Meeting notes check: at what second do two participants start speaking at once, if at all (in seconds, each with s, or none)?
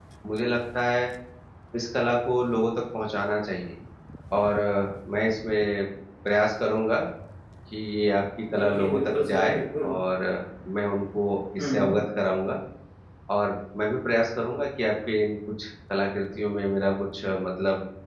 8.6 s